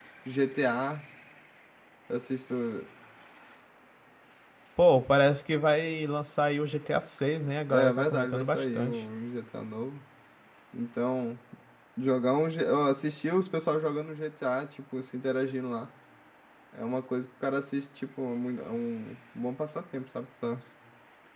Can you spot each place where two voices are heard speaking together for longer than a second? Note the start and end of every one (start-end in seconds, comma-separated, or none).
7.7-9.0